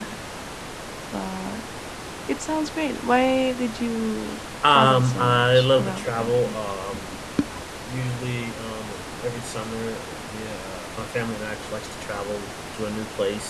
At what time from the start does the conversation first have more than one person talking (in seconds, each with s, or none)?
4.6 s